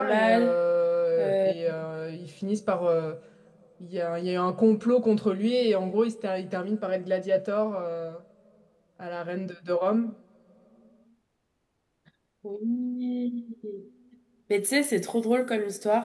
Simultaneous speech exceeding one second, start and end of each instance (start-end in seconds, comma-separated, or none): none